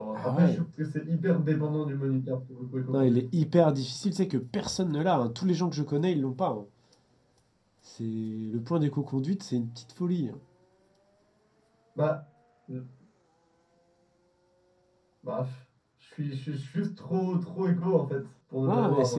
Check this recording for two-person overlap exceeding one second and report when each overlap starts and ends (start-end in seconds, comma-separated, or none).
none